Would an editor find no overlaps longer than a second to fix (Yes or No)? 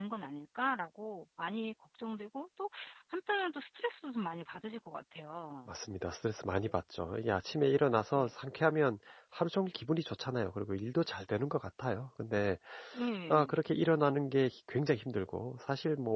Yes